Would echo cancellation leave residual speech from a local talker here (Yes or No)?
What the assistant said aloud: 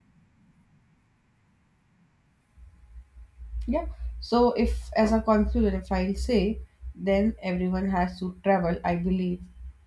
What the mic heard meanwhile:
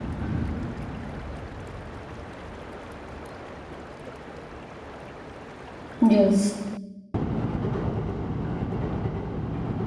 Yes